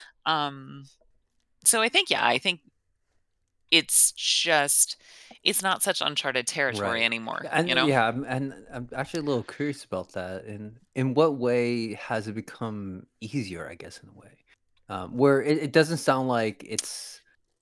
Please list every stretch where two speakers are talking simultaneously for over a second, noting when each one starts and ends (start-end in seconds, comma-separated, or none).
none